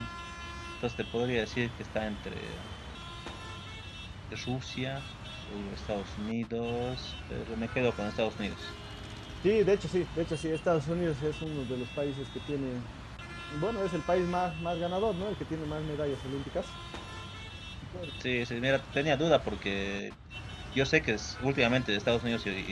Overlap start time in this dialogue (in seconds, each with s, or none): none